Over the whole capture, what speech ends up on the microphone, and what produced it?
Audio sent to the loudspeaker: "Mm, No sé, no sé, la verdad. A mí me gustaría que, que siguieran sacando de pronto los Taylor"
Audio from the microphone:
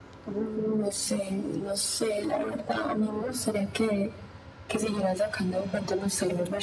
echo only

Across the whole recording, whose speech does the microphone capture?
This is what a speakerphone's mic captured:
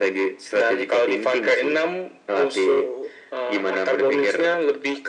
echo only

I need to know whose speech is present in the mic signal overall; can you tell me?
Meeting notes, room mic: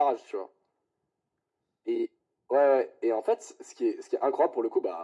echo only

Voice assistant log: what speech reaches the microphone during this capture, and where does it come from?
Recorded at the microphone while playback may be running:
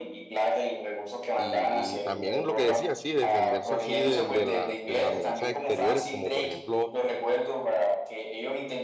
both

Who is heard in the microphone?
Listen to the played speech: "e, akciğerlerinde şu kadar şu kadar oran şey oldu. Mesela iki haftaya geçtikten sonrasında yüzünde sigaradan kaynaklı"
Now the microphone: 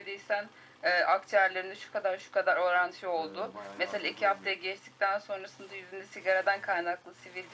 both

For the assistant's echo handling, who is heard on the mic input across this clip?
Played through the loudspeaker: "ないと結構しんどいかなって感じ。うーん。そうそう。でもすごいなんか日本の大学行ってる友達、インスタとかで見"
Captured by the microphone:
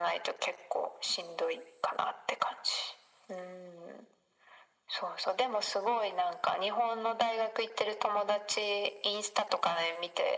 echo only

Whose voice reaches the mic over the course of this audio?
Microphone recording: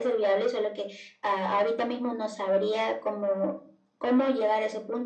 echo only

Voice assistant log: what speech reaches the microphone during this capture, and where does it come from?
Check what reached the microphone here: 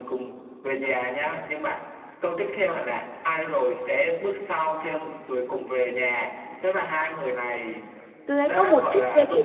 both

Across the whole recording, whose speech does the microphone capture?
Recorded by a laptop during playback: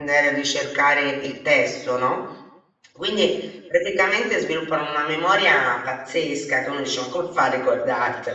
user only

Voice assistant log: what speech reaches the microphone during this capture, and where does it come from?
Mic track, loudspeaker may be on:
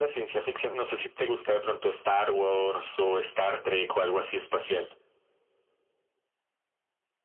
echo only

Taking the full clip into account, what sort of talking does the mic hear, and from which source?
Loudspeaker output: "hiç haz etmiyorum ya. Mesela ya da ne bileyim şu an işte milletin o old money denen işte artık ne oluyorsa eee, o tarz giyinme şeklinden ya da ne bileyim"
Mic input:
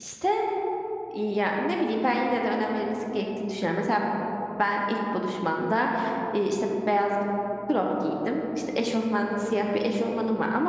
user only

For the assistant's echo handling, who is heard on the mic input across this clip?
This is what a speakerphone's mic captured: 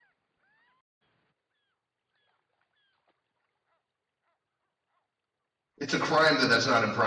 user only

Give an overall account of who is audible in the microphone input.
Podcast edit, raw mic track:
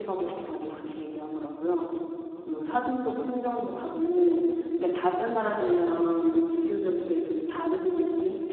user only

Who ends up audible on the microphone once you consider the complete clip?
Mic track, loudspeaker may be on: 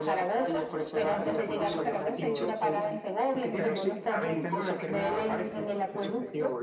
both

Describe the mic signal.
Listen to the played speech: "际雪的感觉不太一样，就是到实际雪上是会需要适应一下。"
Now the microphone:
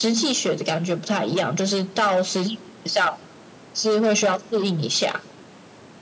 echo only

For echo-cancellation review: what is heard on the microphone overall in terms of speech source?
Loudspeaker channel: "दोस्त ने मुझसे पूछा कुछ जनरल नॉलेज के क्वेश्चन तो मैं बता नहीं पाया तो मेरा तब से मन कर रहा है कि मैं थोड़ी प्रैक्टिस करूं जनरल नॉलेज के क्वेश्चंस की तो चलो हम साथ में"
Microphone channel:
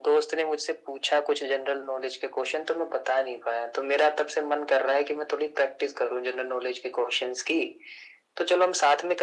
echo only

